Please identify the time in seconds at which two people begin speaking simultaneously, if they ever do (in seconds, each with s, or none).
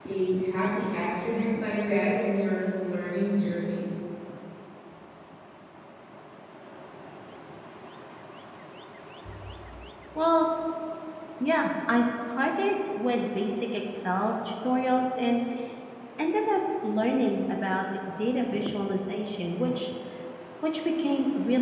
none